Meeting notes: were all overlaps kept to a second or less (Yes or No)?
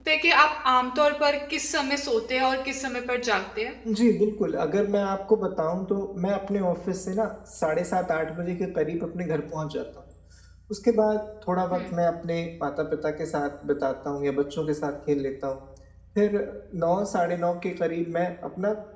Yes